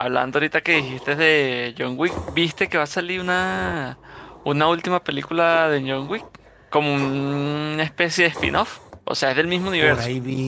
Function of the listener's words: taking over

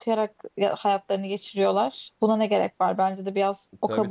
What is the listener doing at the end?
taking over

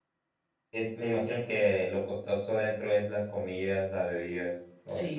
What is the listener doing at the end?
taking over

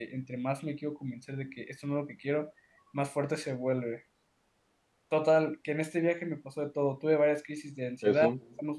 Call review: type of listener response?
listening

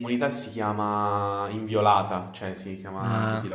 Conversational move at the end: taking over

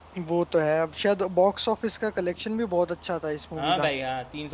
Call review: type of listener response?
taking over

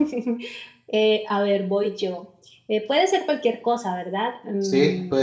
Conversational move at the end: taking over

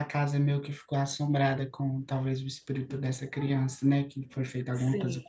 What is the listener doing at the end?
taking over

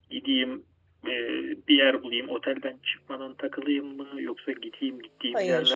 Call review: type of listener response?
listening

